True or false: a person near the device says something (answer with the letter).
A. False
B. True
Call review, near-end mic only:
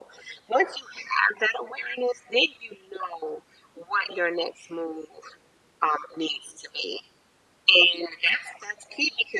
A